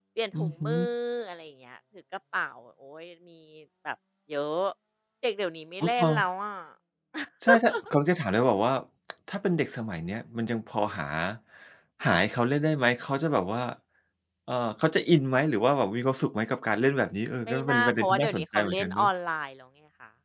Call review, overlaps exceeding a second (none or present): present